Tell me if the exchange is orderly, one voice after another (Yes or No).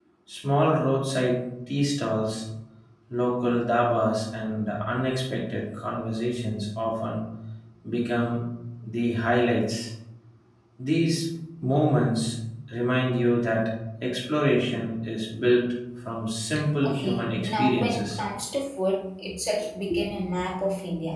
No